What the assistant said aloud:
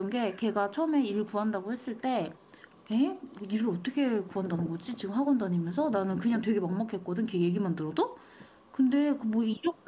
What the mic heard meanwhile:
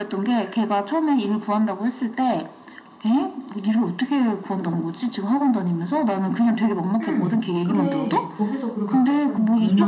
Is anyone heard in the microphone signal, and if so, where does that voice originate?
both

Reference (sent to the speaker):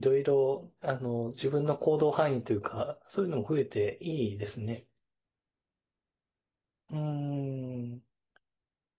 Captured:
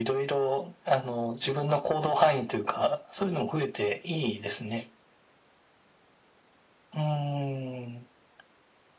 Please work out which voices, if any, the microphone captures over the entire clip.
echo only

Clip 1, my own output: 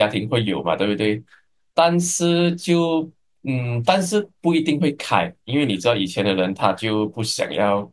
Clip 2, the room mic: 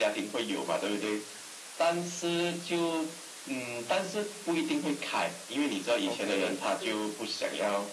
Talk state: both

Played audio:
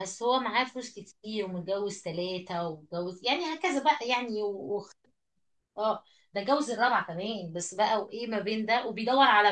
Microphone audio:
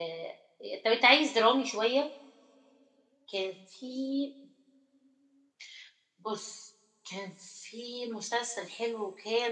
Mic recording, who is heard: user only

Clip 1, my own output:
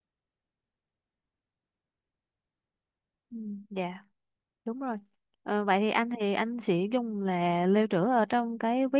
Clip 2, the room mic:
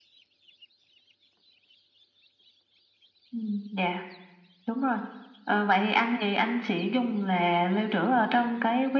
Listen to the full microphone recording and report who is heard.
echo only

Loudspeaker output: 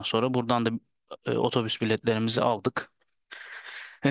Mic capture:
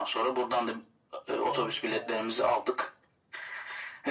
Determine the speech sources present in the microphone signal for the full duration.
both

